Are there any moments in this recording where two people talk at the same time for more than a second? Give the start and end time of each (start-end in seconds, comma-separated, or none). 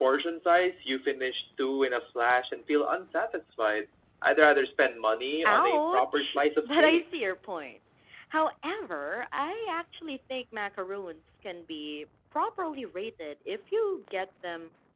5.5-7.0